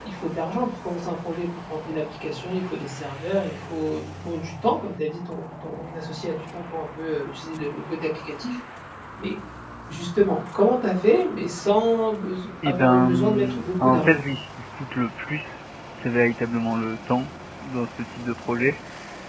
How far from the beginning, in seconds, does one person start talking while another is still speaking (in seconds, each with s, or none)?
12.6 s